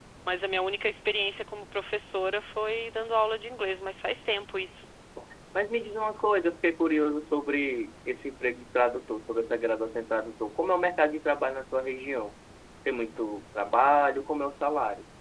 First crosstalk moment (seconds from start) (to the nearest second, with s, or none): none